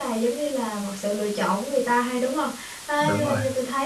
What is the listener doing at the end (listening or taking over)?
listening